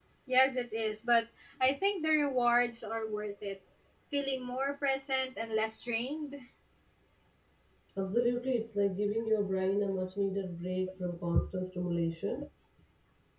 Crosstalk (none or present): none